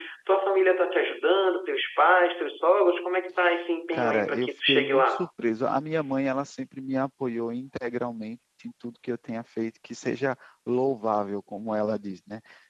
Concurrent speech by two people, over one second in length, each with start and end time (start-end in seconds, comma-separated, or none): 3.9-5.2